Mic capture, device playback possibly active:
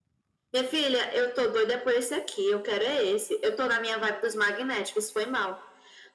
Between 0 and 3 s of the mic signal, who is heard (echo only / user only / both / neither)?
echo only